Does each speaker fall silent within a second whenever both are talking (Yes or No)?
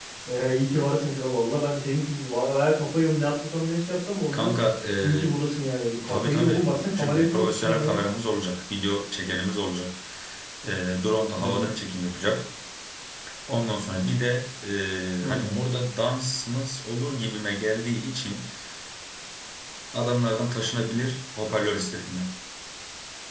No